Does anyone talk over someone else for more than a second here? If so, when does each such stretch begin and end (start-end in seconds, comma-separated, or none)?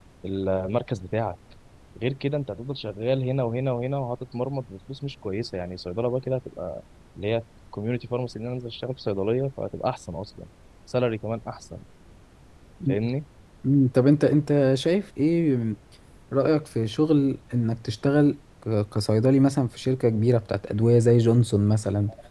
none